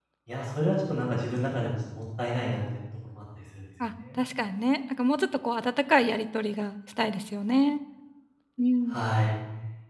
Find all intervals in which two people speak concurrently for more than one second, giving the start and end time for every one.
none

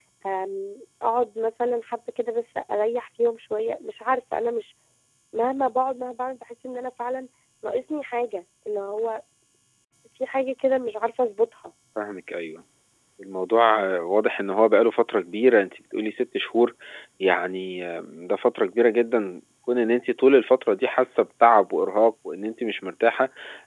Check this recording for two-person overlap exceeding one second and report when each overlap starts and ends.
none

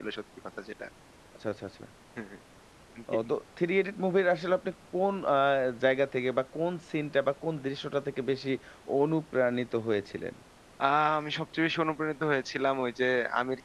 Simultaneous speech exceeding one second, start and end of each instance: none

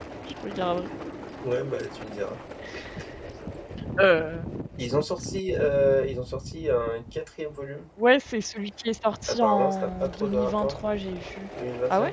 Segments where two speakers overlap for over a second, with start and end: 9.3-10.8

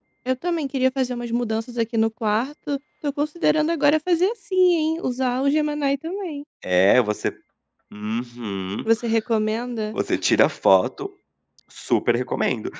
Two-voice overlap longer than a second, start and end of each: none

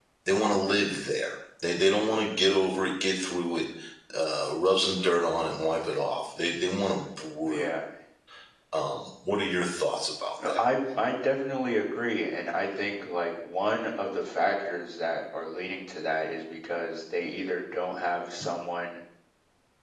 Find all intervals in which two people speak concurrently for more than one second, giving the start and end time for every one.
none

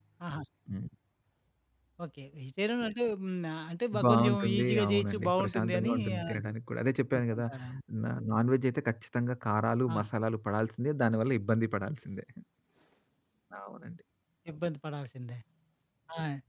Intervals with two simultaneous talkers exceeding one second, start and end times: 4.0-6.4

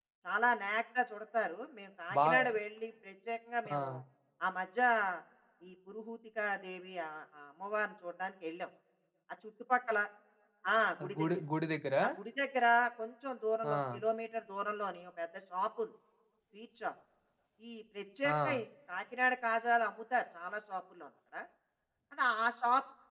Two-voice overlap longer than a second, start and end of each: none

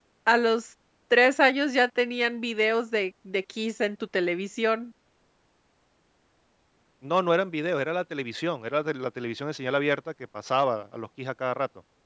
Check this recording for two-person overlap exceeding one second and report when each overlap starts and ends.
none

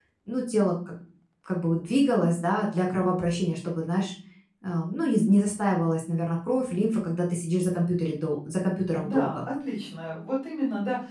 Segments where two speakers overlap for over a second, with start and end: none

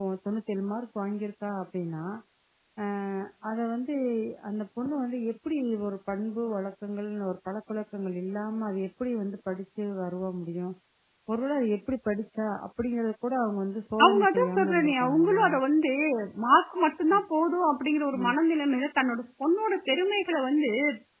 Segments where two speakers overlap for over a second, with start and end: 14.0-15.5

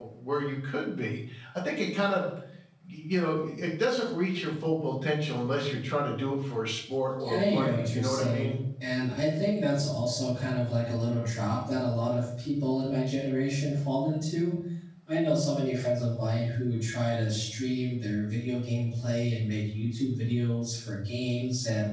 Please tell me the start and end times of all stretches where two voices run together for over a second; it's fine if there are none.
7.2-8.6

